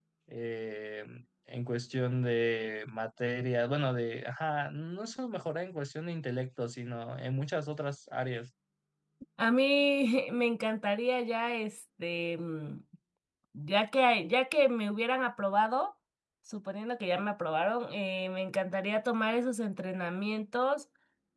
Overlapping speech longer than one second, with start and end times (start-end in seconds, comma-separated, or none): none